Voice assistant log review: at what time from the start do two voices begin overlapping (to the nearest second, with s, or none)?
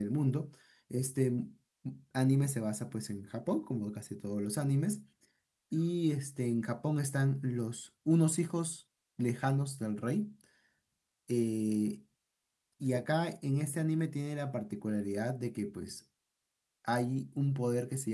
none